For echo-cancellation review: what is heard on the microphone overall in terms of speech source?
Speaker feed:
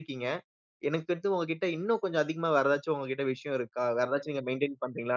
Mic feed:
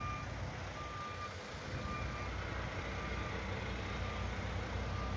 neither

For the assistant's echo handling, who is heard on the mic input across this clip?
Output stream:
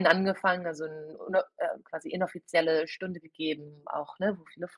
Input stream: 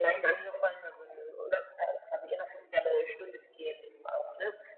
echo only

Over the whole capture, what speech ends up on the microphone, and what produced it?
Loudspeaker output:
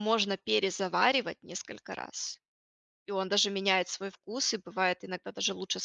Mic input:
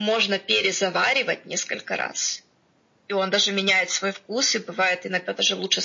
echo only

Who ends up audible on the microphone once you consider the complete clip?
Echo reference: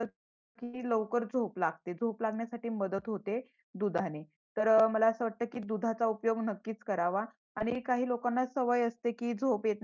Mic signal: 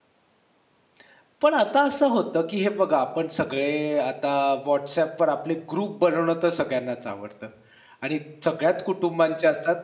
user only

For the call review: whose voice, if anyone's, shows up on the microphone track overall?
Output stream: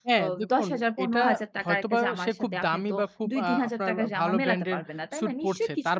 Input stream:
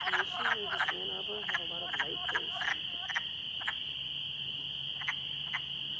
neither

